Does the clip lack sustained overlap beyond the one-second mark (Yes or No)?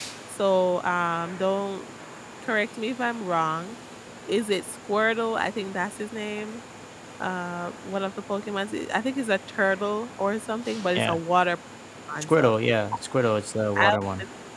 Yes